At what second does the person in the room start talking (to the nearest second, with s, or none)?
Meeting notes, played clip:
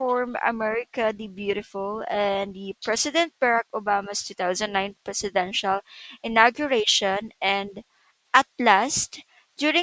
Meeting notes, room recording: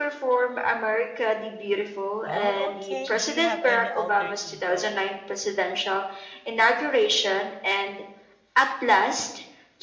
2 s